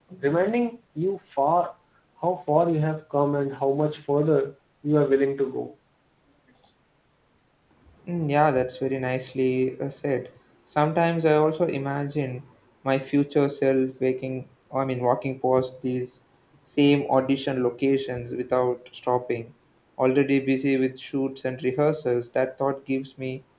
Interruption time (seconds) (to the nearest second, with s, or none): none